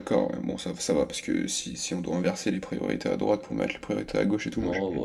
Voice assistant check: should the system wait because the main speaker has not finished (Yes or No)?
No